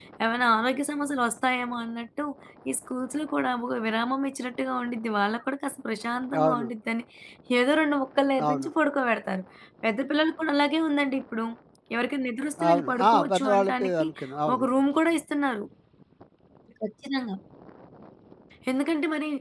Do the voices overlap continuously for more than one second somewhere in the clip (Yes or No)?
Yes